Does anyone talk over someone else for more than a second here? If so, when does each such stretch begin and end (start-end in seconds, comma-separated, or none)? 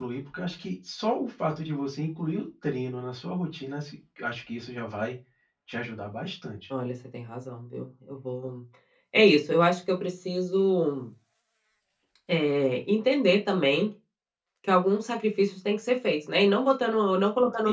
none